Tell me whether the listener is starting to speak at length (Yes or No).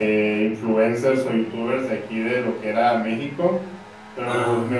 No